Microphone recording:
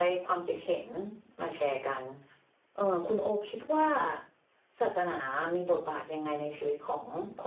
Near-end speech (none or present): present